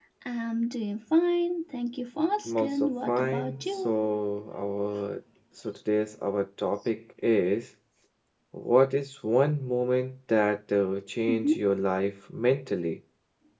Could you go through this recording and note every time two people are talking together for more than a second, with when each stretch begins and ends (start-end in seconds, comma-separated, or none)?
2.5-3.9